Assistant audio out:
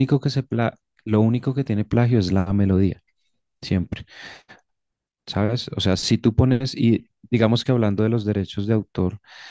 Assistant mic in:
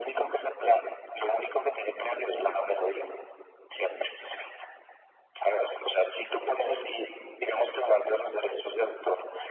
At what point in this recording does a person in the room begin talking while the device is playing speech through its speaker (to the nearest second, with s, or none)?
none